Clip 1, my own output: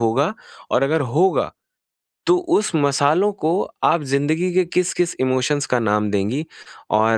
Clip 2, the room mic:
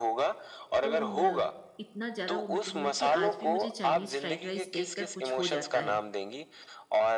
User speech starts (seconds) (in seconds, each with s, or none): 0.8 s